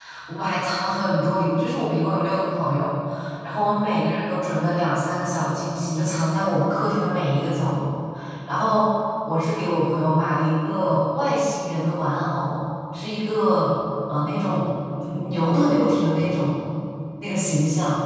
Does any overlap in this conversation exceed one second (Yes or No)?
Yes